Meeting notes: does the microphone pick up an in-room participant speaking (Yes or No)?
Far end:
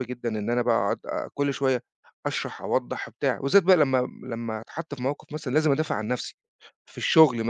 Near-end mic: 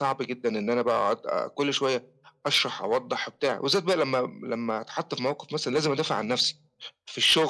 No